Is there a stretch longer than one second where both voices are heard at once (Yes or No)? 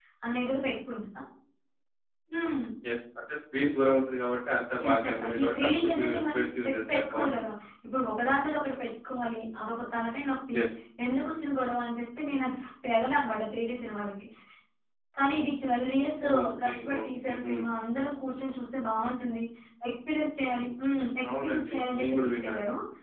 Yes